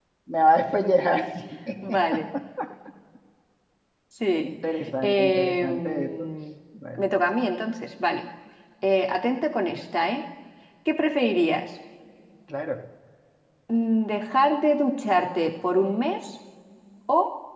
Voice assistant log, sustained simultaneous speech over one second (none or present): present